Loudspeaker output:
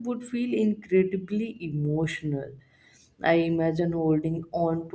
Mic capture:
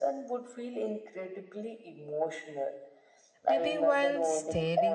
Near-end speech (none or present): present